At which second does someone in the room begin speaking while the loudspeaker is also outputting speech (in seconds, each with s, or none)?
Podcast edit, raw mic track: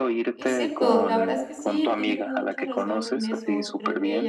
0.4 s